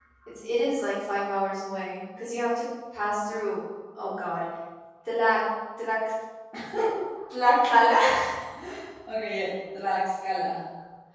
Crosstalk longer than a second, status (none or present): none